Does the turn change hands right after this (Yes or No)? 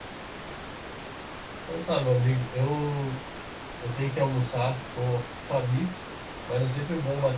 No